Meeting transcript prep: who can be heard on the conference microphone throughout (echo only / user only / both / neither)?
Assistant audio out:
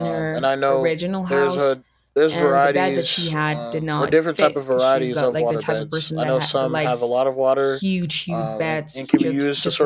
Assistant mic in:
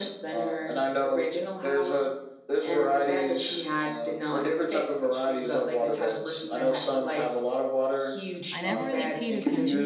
both